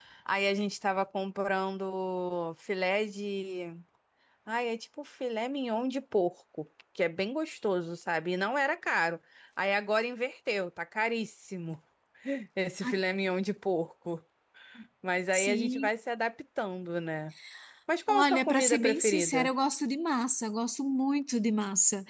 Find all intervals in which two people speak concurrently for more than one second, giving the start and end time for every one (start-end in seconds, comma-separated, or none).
18.1-19.5